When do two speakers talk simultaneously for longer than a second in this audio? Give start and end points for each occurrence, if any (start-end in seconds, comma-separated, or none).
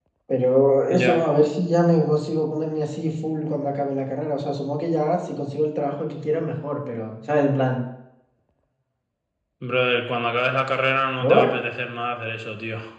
none